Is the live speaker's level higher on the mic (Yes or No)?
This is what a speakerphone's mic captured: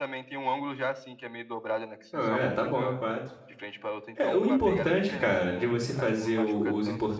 Yes